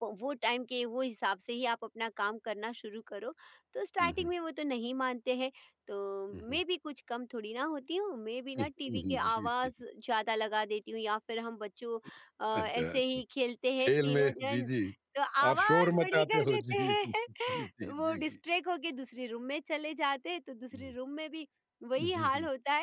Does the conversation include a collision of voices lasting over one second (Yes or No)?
Yes